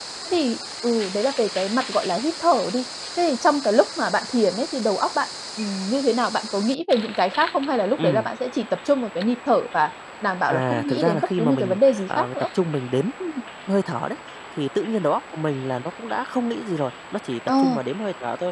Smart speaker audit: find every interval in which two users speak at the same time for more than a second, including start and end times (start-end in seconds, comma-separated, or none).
10.5-12.5